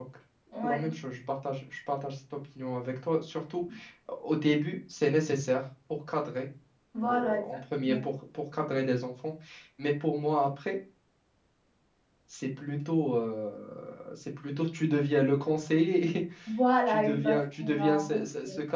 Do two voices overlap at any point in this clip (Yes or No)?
Yes